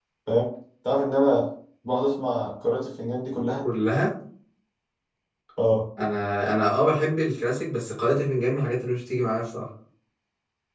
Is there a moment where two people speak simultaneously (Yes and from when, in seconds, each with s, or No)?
No